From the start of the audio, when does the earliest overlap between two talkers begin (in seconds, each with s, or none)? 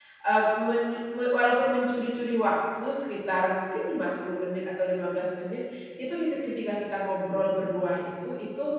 none